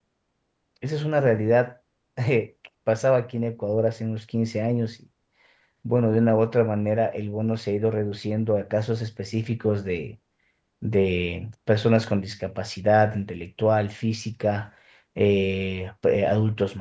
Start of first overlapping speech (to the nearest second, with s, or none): none